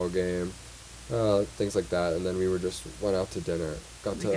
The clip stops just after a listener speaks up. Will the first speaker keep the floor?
Yes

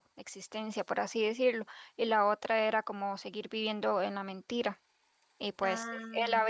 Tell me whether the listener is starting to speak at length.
No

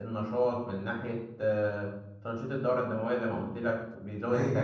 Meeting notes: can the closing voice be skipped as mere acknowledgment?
No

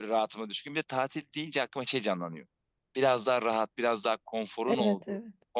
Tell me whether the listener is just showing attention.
Yes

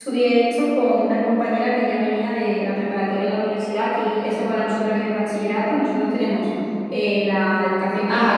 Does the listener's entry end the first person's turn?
Yes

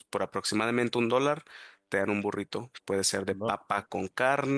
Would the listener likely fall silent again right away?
Yes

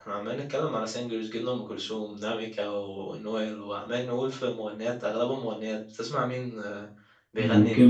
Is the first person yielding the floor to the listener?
Yes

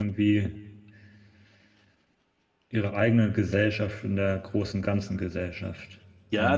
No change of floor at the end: No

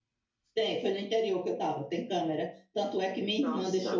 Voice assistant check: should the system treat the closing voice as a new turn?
No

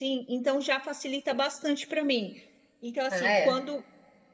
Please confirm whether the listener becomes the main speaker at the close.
No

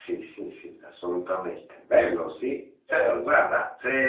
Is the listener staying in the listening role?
Yes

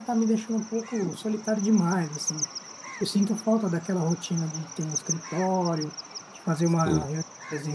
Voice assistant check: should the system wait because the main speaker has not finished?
Yes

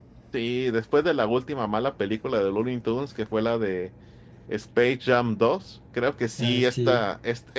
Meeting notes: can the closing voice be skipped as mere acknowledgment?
Yes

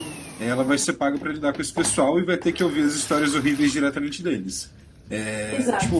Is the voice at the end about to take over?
No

